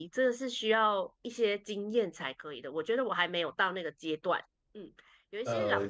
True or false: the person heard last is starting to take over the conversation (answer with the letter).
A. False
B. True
A